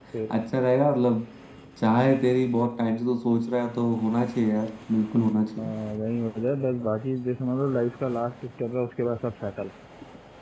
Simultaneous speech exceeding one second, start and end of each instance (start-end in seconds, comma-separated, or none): none